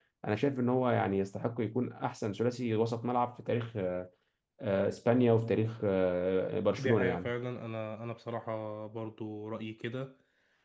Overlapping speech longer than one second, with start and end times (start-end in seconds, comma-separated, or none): none